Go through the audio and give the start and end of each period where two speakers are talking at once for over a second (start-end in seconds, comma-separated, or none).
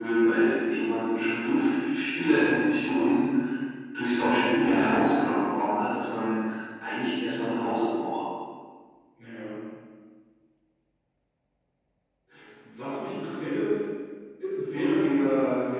none